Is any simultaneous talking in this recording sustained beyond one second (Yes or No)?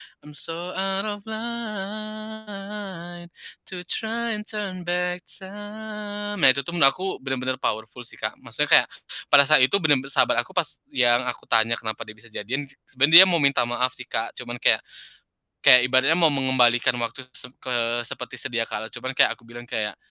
No